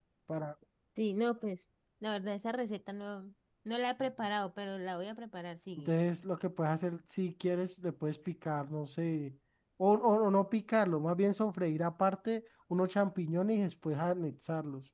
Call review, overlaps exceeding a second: none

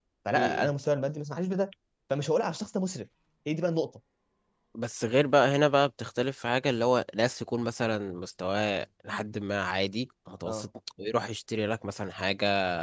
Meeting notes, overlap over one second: none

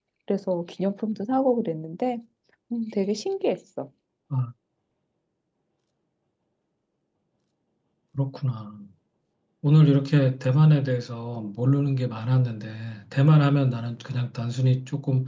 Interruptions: none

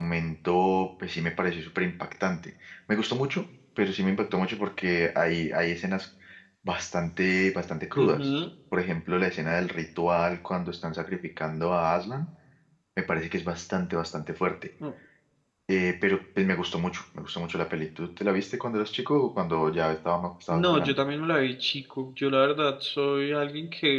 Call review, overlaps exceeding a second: none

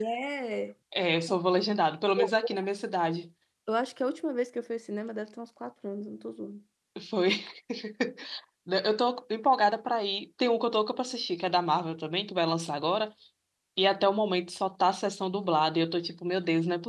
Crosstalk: none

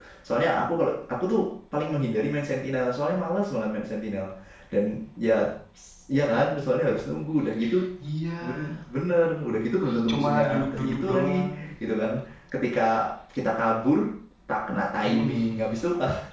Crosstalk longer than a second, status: present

